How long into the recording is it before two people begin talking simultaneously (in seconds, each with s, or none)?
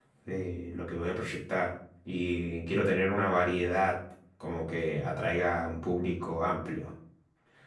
none